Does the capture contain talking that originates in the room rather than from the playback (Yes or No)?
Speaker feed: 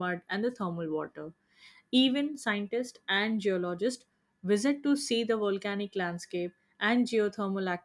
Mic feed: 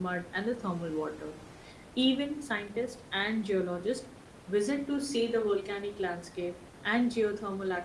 No